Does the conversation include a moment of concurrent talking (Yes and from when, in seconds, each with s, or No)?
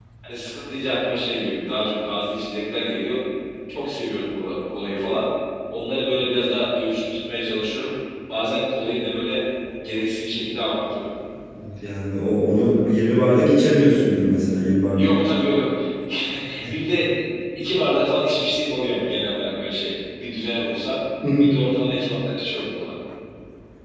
No